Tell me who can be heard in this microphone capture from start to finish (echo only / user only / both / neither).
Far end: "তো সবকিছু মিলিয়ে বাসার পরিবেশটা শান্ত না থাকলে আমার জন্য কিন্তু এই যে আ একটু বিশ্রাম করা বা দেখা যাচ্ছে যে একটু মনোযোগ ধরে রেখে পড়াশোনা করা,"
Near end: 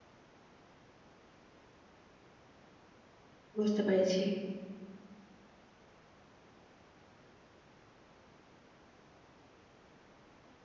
user only